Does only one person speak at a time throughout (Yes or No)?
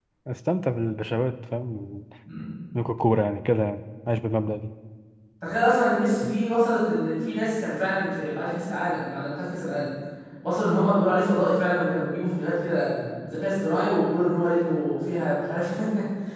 Yes